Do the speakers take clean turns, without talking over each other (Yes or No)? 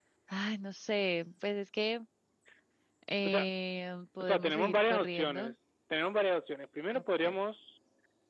No